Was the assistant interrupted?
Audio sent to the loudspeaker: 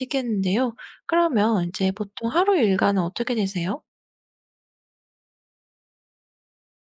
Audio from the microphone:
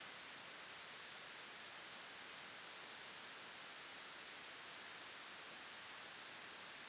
No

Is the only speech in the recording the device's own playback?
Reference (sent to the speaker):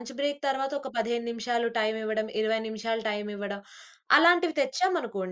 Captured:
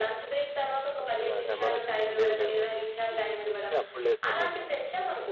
No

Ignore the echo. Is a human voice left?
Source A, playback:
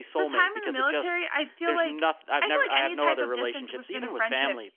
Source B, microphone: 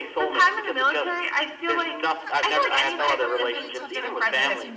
Yes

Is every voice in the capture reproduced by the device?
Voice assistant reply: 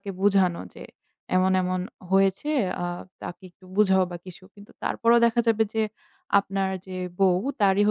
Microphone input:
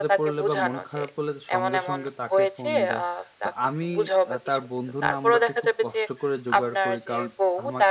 No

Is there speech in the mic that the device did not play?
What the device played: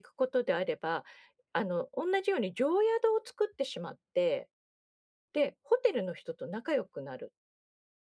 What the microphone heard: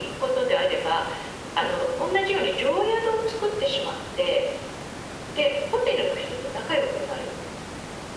No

